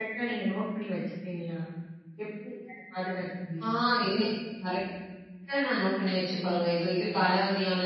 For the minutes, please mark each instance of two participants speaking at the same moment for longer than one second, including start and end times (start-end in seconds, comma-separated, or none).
none